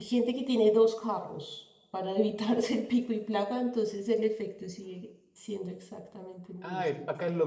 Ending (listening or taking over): taking over